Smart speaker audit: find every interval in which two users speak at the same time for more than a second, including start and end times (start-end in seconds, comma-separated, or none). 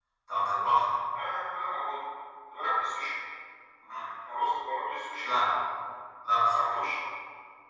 none